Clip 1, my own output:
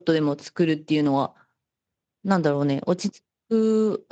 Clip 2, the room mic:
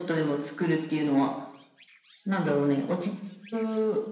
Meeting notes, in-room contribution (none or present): none